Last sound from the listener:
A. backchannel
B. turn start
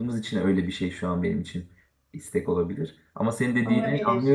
A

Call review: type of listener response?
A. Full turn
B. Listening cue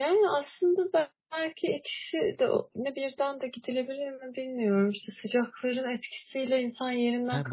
A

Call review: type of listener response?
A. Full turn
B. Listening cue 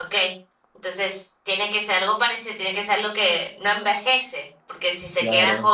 B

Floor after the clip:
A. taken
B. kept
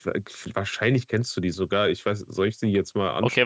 A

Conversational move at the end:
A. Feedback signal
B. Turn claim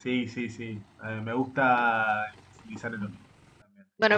B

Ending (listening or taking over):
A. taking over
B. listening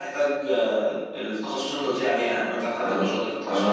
A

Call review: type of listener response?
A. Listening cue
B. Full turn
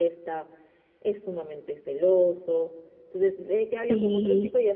A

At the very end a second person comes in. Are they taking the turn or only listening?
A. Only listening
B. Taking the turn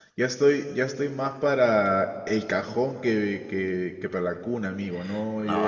B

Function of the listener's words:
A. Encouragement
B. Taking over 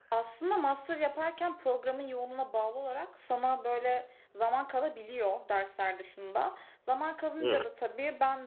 A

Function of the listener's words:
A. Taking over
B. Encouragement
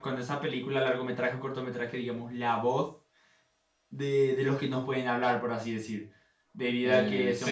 B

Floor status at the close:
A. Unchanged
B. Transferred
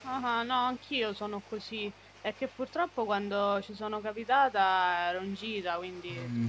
B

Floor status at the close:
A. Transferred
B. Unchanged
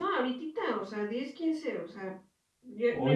B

